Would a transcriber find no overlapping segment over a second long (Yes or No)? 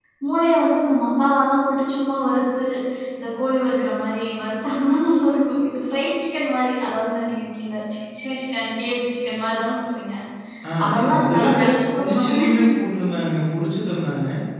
No